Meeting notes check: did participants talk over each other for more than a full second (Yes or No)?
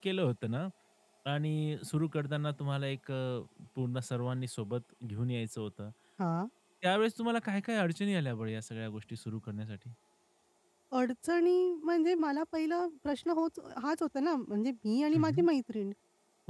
No